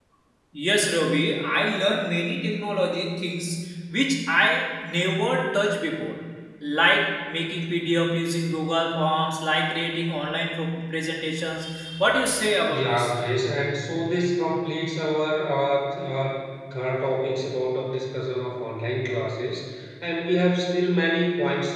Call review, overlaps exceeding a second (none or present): none